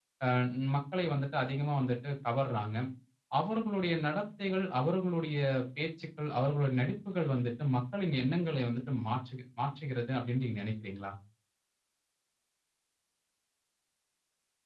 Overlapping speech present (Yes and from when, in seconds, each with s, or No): No